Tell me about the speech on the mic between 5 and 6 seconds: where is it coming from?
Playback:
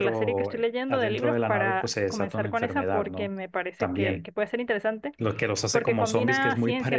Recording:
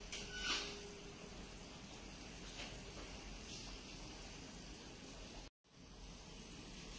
neither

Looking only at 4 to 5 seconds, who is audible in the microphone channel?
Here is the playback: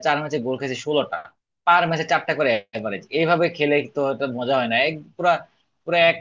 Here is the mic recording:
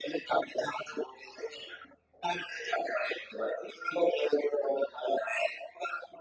echo only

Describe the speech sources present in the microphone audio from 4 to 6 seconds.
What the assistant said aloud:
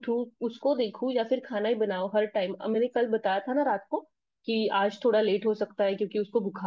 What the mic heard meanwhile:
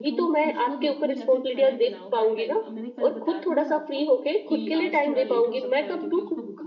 both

